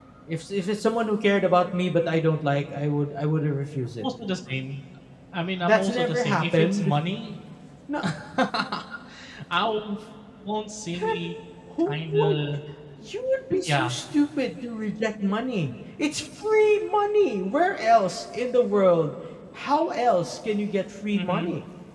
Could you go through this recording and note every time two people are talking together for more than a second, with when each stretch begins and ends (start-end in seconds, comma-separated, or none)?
5.6-6.9